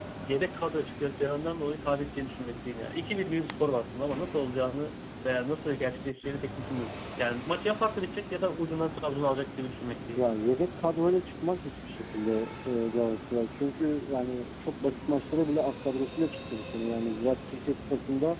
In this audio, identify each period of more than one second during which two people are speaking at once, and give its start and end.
none

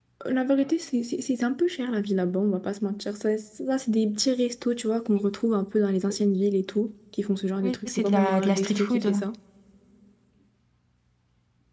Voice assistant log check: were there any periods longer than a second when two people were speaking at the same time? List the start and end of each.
7.6-9.1

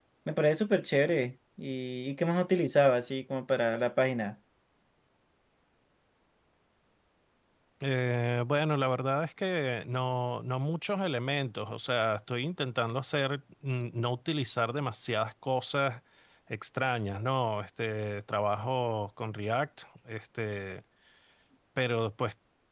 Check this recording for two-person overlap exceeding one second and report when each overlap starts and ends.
none

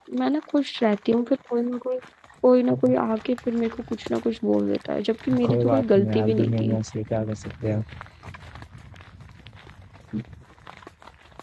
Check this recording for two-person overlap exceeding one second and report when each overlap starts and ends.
5.5-6.8

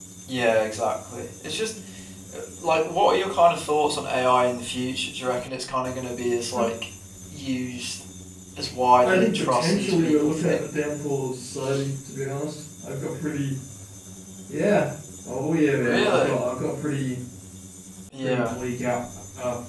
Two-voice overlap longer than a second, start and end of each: 9.1-10.7

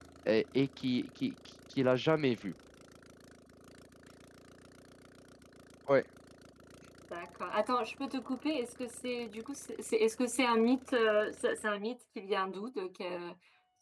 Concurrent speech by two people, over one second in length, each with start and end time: none

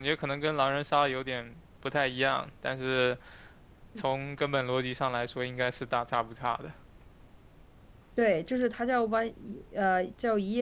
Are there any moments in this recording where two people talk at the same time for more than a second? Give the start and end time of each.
none

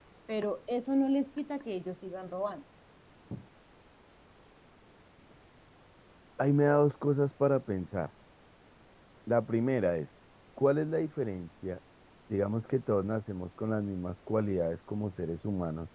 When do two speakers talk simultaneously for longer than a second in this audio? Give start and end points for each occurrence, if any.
none

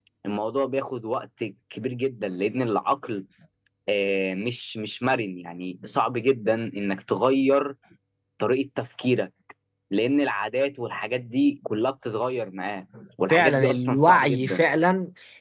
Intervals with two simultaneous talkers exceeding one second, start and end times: 13.3-14.6

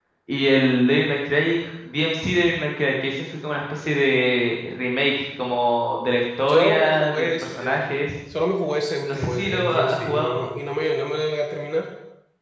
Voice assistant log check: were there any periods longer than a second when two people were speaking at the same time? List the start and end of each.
6.5-7.8, 9.1-10.4

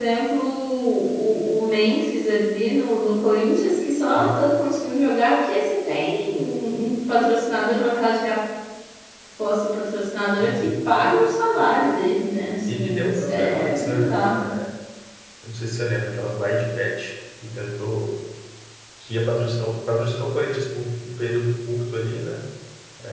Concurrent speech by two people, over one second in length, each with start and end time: 12.7-14.3

